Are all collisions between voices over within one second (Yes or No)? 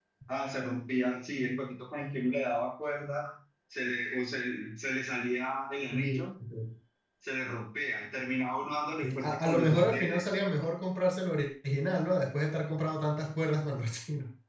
No